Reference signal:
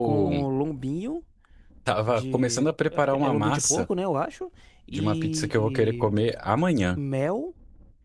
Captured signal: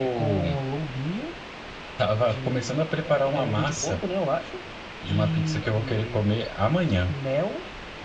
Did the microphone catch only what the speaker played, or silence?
Yes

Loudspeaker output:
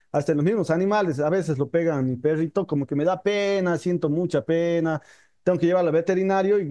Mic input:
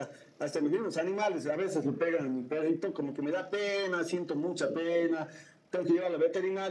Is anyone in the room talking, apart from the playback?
No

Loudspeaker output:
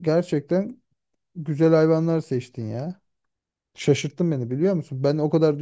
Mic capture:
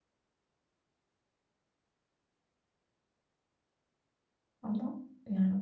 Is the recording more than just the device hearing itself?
Yes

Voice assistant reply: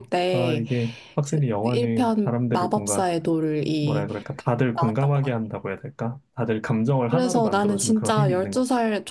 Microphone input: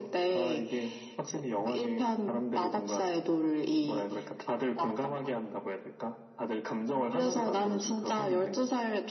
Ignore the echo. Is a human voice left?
No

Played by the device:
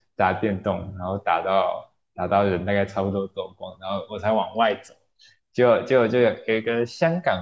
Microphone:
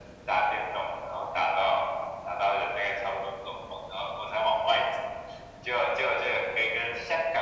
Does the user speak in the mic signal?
No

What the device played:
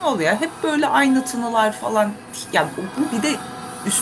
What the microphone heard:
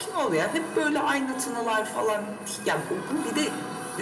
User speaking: No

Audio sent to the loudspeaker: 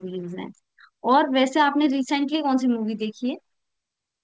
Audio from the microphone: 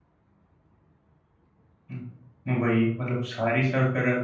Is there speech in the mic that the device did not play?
Yes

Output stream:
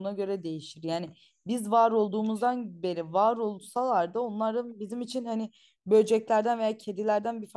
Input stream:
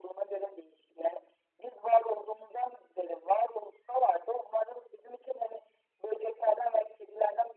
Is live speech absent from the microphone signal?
Yes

